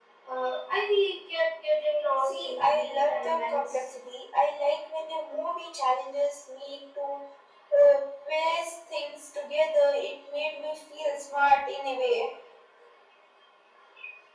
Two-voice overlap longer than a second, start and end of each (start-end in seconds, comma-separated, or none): 2.2-3.8